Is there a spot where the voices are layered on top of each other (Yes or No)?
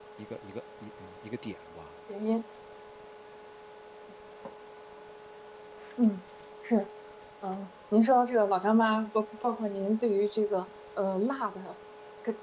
No